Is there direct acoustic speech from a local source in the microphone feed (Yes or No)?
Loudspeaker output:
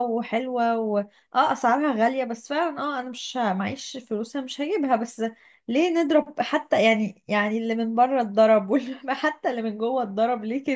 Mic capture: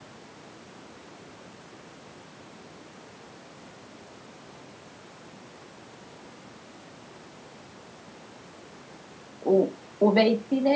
Yes